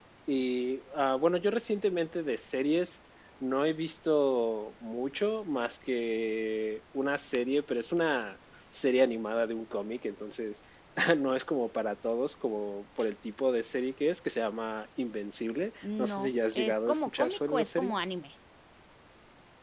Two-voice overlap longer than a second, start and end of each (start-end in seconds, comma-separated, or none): 16.0-17.9